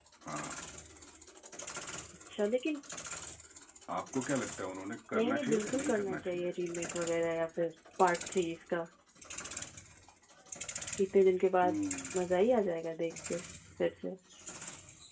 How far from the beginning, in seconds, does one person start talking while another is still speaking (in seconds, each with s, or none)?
5.1 s